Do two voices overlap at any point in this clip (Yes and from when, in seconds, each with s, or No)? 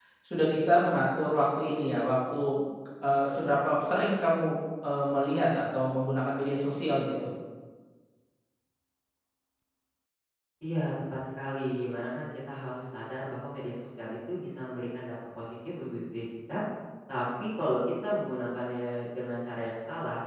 No